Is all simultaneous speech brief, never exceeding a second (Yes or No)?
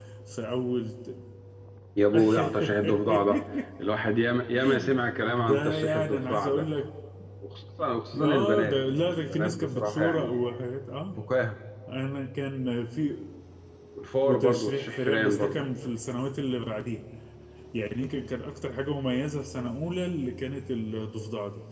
No